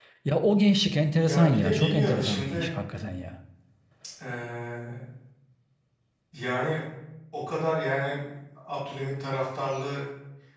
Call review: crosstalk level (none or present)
present